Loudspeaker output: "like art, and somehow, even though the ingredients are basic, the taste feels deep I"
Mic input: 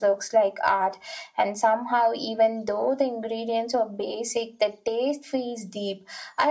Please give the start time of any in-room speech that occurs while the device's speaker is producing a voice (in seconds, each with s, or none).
none